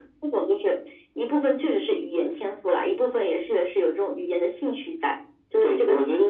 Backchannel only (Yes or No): No